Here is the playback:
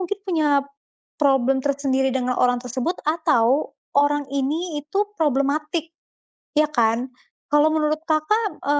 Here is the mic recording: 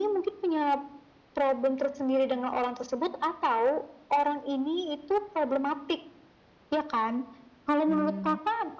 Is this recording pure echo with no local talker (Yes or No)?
No